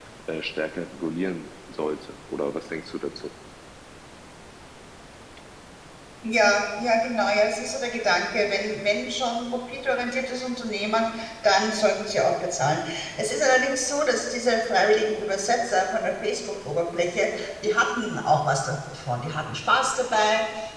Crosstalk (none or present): none